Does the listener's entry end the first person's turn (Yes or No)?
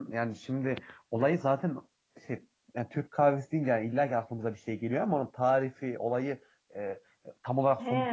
Yes